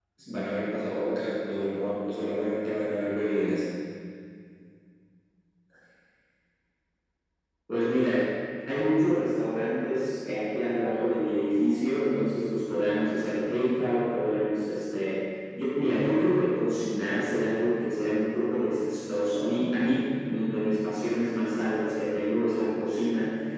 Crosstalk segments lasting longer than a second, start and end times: none

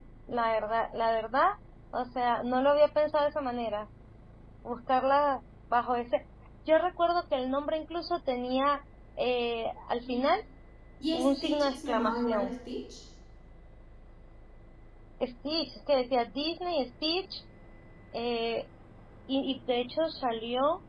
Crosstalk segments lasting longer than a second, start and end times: 11.1-12.5

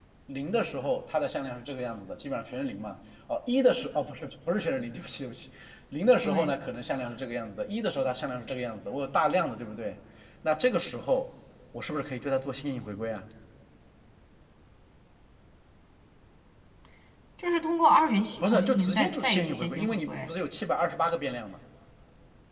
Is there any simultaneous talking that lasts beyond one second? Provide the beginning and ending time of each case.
18.4-20.3

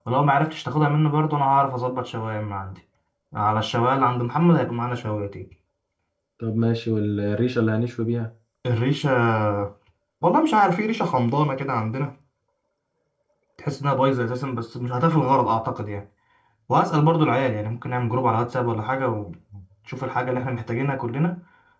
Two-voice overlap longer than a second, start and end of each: none

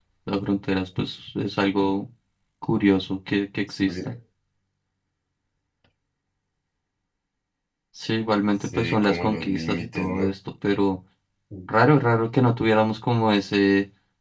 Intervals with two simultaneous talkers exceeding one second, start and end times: 8.7-10.3

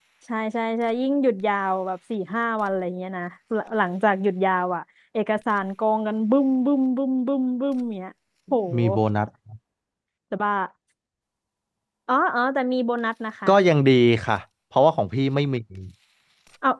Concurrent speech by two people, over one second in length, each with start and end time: none

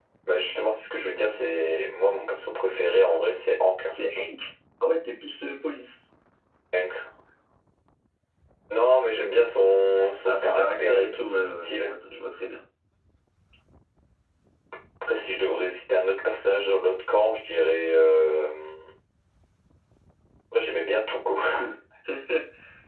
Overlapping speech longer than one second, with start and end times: 10.2-11.9

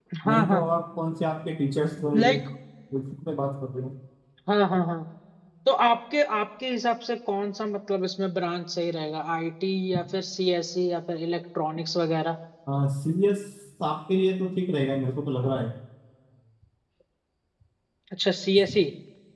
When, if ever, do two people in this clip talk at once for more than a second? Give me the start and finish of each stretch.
none

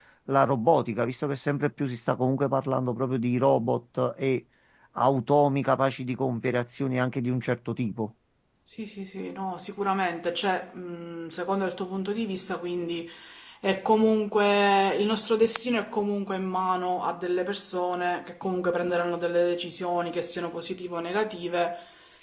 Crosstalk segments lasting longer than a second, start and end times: none

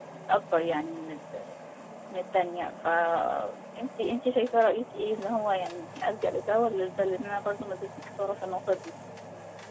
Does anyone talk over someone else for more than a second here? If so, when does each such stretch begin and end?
none

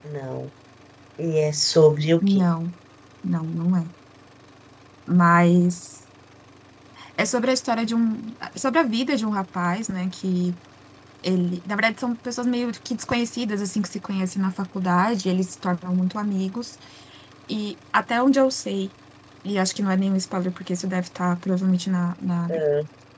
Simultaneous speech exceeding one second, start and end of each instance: none

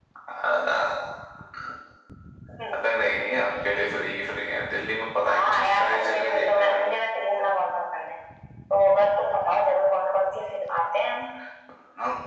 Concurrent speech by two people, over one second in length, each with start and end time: 5.3-6.8

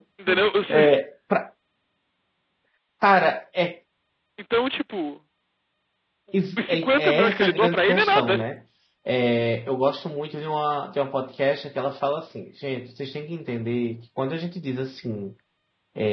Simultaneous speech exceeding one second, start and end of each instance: 6.6-8.4

